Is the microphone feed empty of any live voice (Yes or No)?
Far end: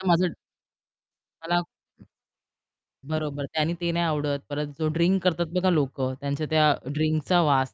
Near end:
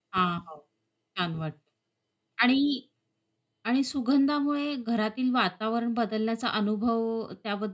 No